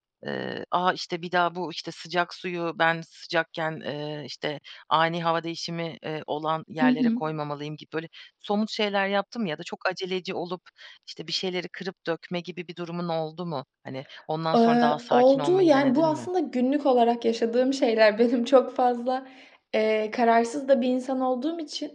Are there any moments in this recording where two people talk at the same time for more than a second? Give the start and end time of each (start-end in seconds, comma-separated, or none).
14.6-16.3